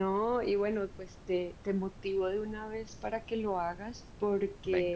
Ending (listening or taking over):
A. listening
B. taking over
A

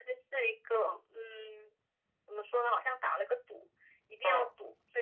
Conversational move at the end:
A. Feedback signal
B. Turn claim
A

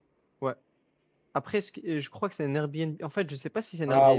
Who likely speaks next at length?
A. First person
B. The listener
B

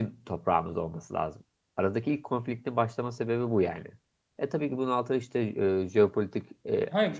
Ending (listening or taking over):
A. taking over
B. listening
A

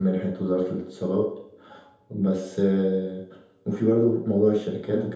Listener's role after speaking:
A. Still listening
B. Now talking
A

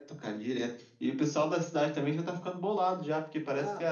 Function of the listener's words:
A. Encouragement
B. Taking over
A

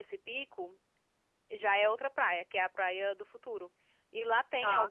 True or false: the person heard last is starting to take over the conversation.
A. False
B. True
A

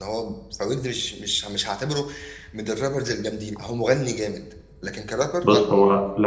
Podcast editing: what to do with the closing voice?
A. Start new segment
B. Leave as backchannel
A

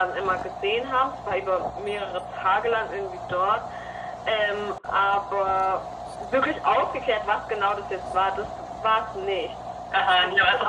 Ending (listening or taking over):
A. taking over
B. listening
A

